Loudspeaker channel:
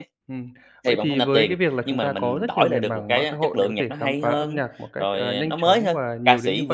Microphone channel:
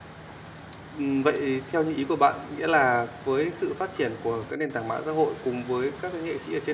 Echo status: none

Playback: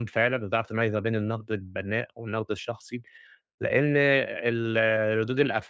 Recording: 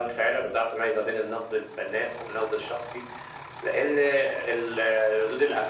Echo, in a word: present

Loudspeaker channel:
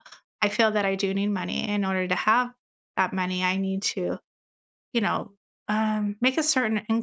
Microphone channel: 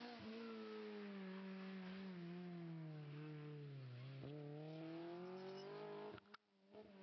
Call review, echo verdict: none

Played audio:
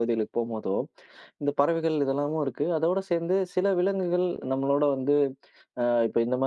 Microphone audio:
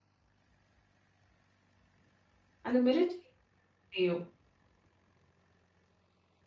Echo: none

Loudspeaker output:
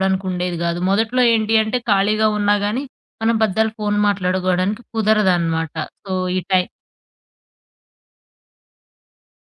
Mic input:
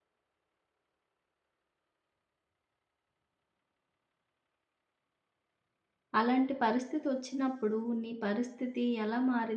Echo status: none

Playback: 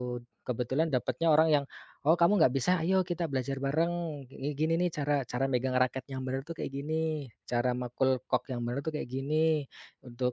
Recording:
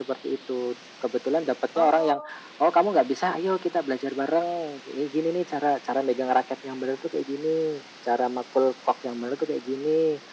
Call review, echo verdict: present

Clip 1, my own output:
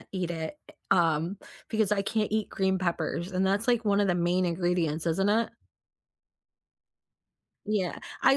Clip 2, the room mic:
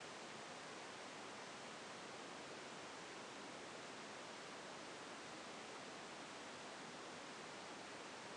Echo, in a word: none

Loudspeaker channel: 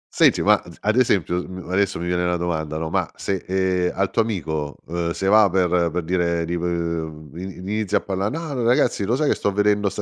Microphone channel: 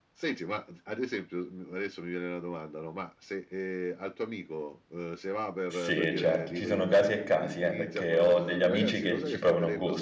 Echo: present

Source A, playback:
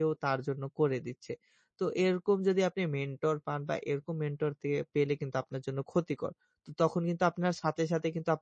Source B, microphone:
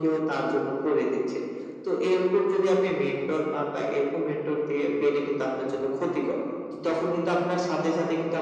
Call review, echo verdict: present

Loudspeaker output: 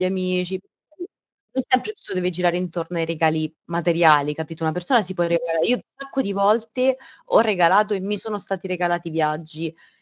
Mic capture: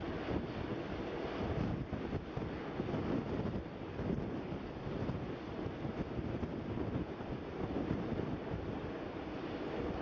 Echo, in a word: none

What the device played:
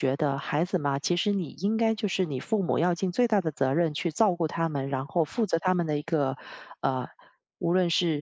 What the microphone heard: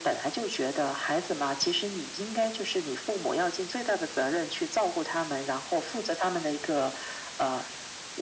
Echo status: present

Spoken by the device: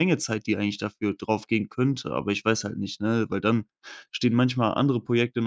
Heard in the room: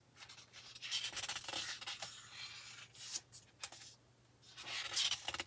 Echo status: none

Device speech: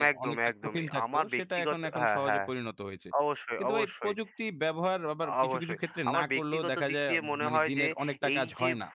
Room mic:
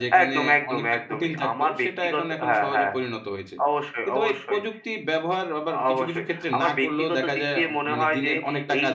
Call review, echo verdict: present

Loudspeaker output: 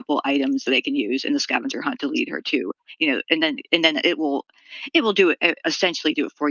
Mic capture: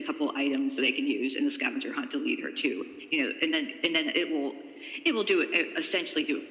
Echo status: present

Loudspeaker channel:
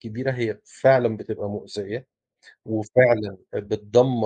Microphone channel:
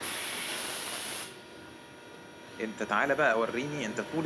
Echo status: none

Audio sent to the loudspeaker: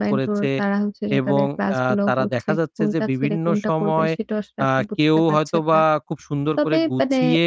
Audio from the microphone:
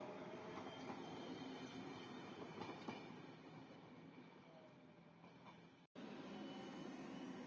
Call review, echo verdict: none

